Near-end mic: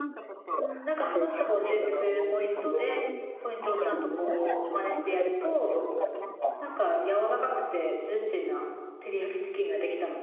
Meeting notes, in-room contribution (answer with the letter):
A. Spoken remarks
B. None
A